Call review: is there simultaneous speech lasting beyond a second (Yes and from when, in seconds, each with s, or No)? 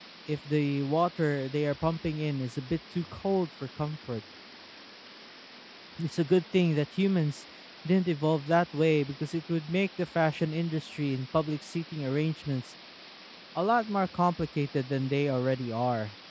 No